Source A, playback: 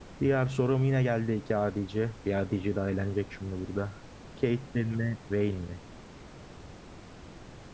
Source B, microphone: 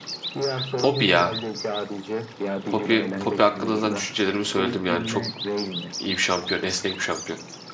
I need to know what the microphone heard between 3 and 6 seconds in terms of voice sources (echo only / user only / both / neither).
both